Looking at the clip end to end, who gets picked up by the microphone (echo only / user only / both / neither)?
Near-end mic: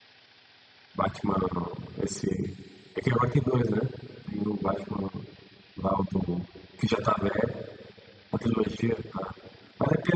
echo only